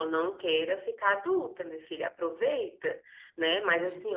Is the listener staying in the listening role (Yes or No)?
Yes